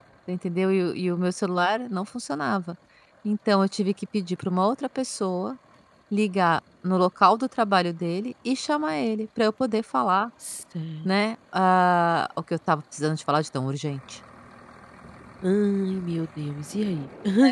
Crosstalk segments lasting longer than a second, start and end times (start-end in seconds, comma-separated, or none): none